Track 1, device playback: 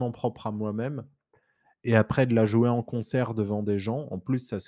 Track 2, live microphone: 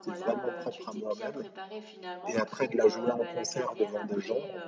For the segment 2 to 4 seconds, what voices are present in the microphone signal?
both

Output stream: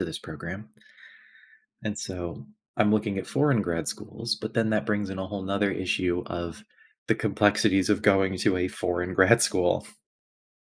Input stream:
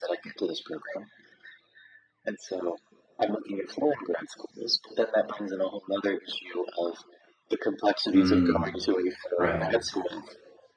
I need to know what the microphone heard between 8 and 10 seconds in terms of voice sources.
both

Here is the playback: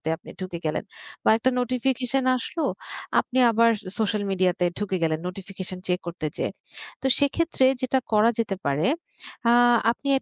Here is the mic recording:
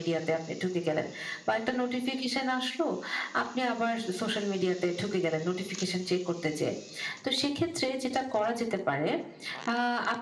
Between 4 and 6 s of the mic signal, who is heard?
echo only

